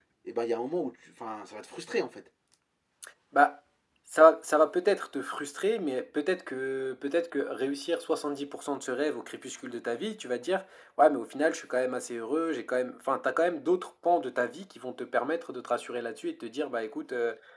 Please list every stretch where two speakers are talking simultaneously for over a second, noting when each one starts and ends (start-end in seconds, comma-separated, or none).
none